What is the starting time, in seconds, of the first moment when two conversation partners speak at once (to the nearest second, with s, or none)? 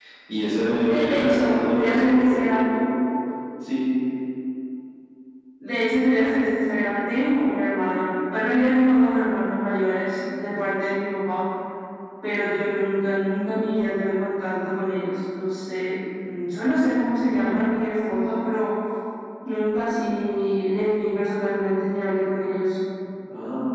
1 s